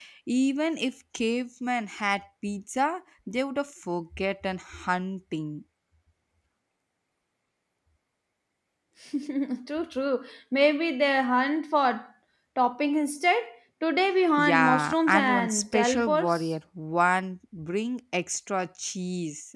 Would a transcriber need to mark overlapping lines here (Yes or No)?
Yes